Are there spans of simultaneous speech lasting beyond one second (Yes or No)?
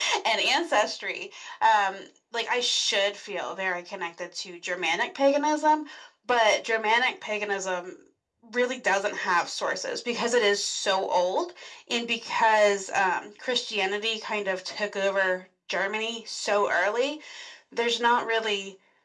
No